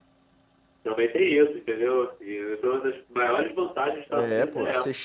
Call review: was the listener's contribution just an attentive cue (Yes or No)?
No